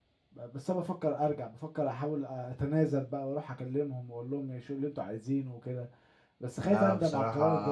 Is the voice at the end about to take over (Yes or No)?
Yes